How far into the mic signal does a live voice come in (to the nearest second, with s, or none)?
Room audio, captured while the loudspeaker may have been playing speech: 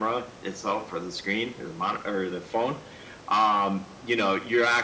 none